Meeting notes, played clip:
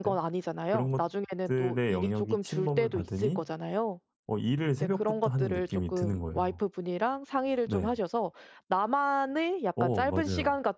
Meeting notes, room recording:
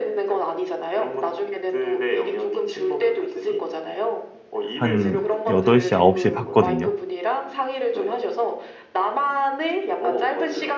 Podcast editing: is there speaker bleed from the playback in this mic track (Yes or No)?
Yes